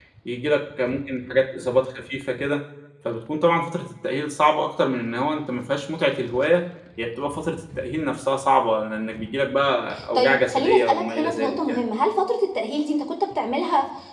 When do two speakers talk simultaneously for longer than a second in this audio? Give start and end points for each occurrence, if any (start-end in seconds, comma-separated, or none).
10.2-11.9